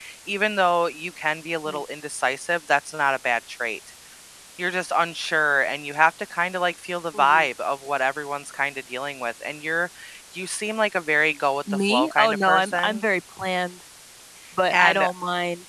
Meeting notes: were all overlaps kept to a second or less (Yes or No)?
No